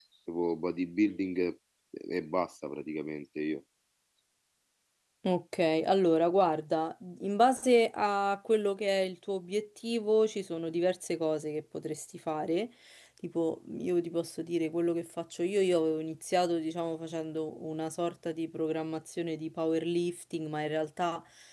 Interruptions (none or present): none